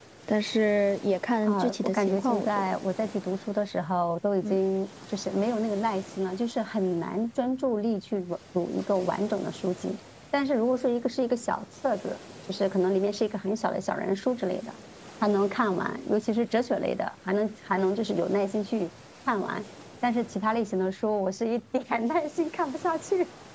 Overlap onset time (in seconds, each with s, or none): 1.4 s